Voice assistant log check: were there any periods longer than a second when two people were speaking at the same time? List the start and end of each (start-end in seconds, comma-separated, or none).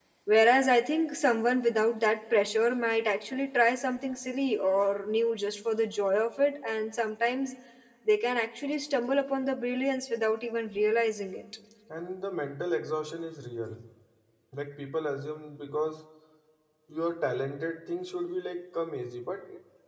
none